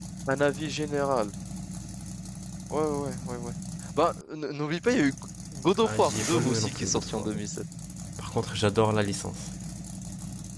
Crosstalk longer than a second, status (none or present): present